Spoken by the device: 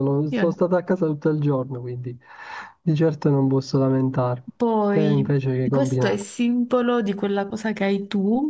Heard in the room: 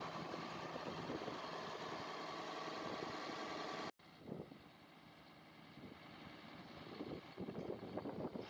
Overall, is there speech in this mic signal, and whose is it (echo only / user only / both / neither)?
neither